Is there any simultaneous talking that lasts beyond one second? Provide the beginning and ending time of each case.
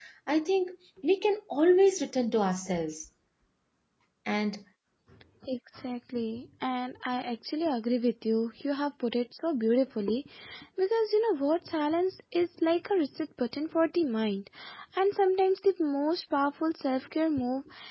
none

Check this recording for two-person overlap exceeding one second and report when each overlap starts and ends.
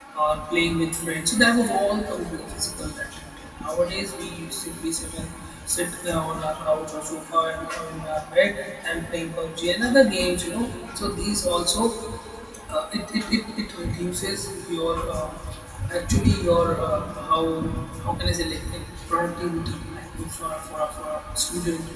none

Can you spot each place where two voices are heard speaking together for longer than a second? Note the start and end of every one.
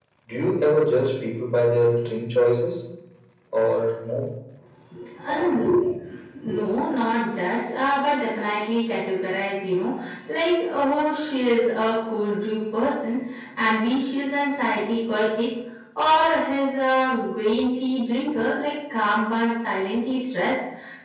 none

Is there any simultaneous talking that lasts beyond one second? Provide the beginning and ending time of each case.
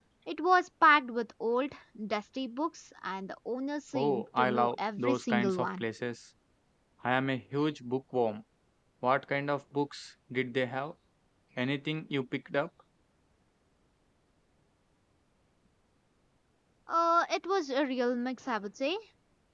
3.9-5.8

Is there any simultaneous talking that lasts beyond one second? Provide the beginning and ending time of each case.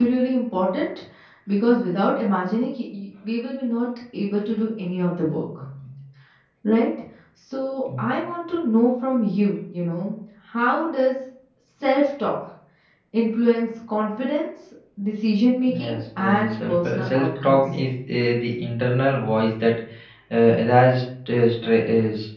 15.7-17.8

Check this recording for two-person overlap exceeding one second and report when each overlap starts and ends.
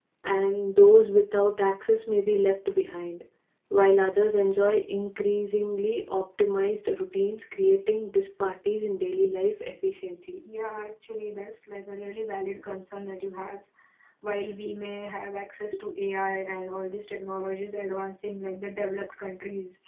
none

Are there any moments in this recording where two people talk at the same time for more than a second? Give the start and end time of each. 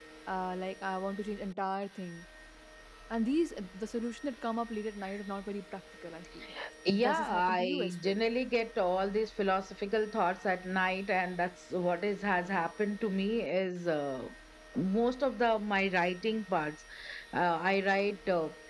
7.0-8.2

